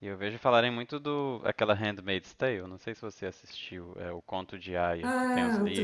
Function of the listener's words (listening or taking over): taking over